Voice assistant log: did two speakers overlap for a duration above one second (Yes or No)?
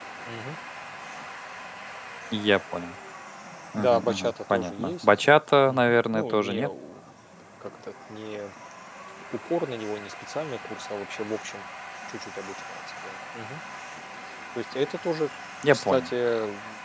Yes